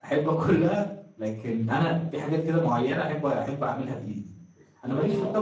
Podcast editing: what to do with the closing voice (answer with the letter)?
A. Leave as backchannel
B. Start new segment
A